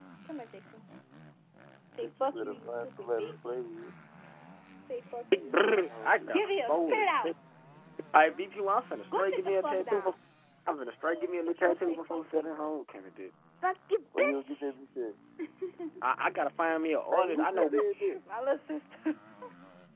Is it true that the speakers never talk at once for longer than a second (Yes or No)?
No